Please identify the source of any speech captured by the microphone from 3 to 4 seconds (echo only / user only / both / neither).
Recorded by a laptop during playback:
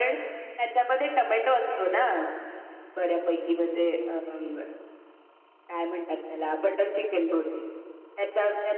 echo only